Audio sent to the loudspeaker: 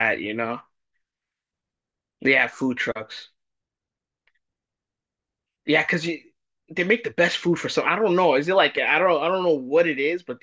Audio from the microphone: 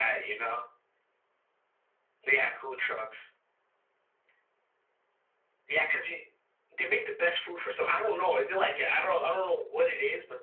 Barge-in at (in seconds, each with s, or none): none